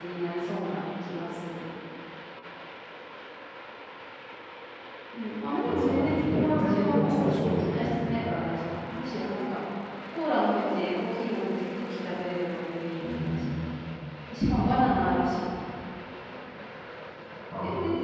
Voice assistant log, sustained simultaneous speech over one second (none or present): present